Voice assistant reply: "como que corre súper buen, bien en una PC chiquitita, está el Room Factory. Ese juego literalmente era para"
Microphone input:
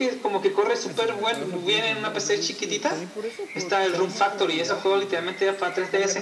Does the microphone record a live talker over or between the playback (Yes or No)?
Yes